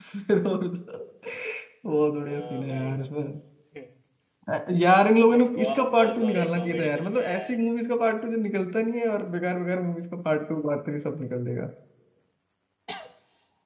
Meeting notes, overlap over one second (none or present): present